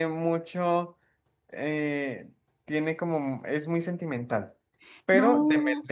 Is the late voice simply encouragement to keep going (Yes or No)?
Yes